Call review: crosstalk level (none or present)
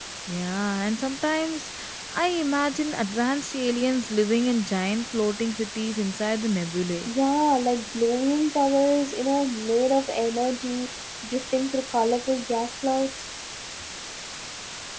none